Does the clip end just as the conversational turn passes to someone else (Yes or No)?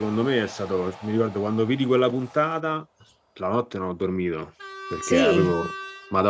No